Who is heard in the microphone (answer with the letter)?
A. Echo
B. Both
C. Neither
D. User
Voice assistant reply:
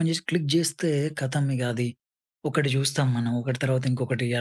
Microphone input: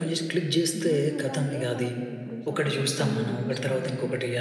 B